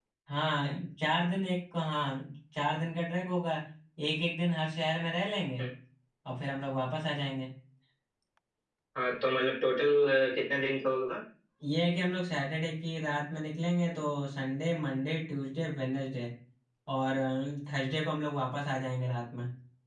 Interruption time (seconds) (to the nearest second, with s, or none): none